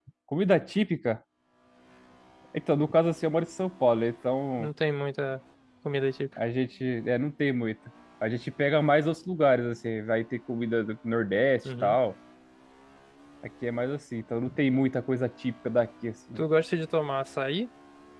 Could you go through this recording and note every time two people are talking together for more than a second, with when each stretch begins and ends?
none

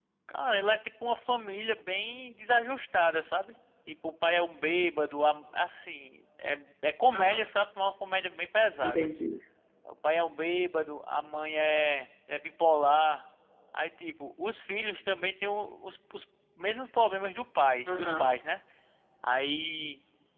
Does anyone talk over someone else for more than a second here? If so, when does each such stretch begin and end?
none

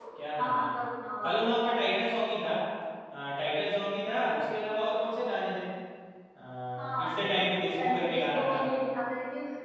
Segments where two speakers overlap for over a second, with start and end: 7.0-8.6

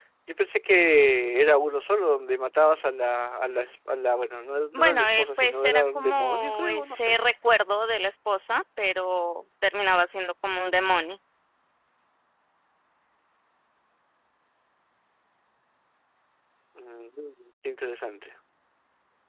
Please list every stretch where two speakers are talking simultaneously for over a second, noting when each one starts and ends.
4.7-7.2

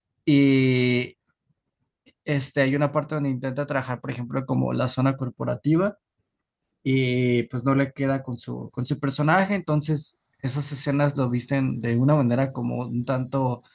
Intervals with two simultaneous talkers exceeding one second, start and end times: none

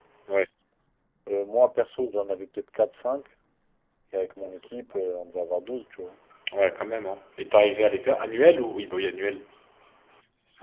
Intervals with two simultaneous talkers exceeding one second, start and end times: none

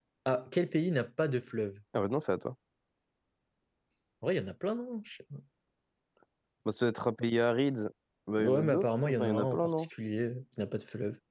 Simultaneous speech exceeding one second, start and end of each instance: 8.4-9.7

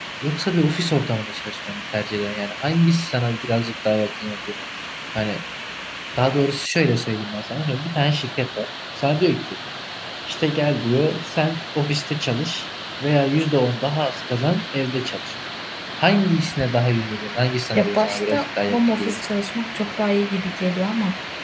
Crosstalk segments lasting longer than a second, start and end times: 17.8-19.1

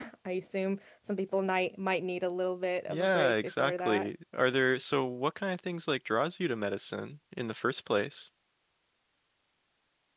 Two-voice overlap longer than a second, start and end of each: 2.9-4.1

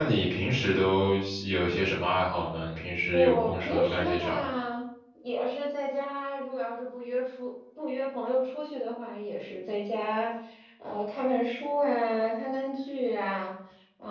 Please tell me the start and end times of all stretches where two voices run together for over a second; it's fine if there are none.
3.1-4.4

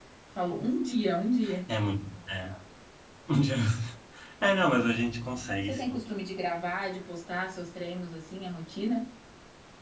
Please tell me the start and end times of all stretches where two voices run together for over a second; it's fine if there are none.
none

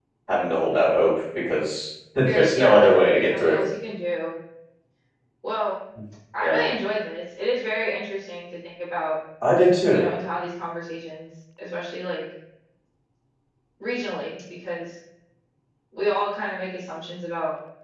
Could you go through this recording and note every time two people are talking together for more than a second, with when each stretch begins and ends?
2.2-3.6

